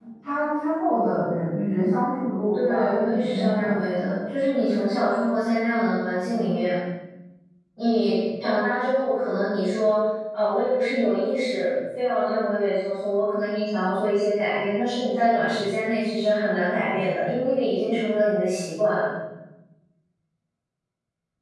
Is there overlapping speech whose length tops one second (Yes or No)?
Yes